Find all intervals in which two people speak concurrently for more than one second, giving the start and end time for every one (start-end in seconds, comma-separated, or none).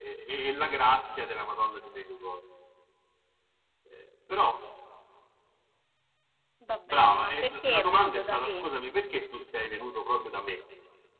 6.9-8.7